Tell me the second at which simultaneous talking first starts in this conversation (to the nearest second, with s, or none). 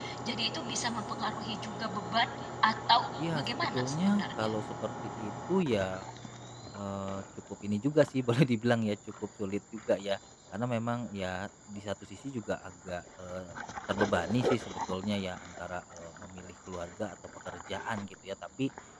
3 s